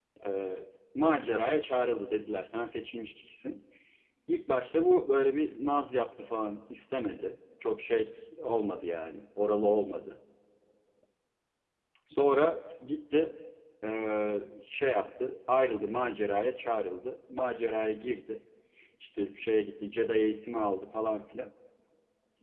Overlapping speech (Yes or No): No